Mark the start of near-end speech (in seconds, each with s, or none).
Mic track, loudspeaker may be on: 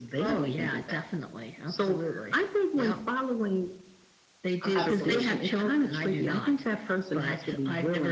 4.7 s